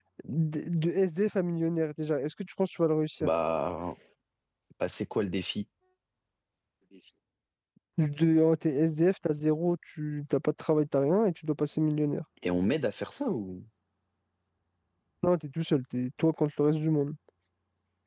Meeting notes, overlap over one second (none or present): none